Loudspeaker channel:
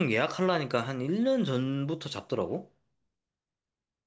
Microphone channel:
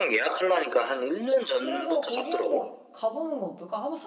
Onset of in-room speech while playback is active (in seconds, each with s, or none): 1.6 s